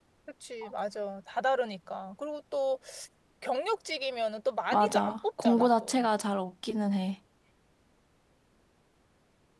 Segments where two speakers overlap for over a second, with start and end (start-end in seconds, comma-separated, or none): 4.7-6.1